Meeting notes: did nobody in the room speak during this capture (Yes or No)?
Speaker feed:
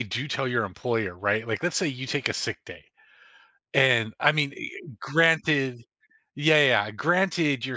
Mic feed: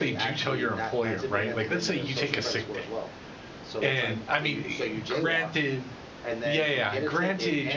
No